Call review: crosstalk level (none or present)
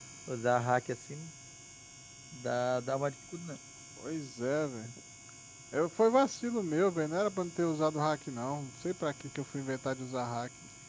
none